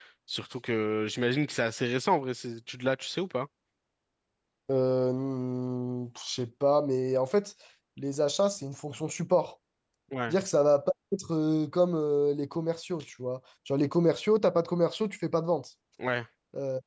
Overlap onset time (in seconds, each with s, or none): none